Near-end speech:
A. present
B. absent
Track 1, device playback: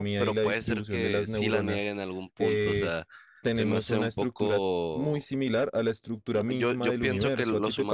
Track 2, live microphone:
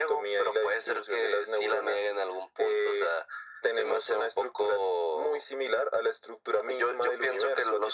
B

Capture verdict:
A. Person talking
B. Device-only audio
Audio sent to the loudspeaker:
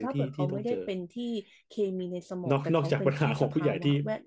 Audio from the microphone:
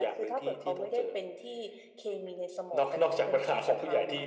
B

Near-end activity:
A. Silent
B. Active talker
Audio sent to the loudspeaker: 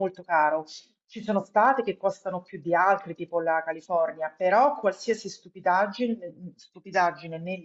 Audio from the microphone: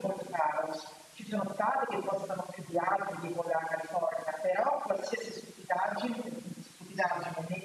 A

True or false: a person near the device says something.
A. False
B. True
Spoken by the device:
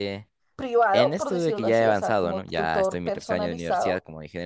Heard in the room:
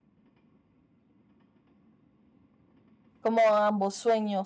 B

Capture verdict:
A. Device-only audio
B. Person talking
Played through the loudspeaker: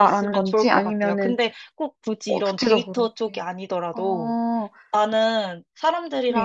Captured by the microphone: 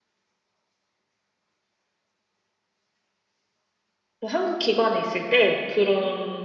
B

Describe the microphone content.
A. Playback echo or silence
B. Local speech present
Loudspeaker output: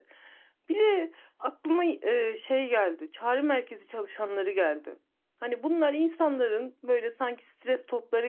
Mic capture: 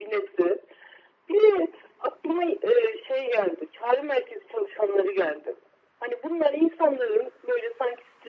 A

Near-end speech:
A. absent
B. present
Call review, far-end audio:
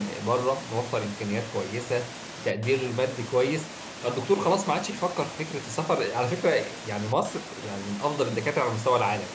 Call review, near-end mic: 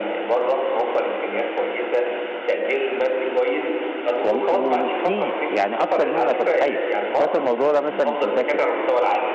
B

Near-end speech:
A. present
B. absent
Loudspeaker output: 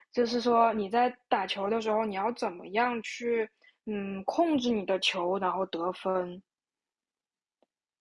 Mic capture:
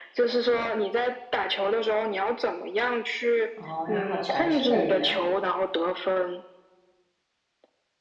A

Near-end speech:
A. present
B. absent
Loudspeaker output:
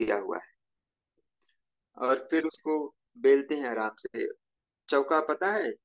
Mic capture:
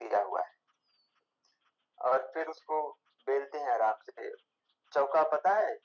B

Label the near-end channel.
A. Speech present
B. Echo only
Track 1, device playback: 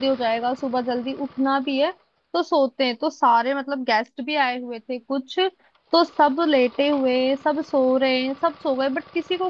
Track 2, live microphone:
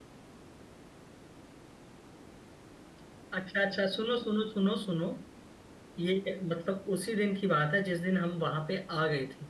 A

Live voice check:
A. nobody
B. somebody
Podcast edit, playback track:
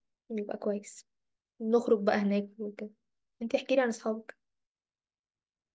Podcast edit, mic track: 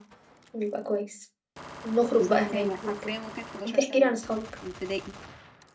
B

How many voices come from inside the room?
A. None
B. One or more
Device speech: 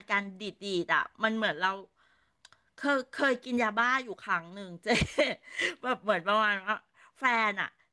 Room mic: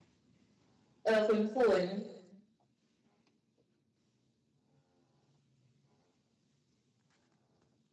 B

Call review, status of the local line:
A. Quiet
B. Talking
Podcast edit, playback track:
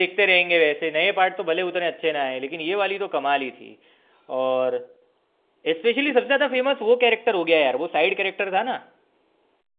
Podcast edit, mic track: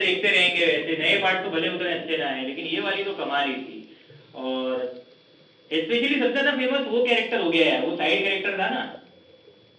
A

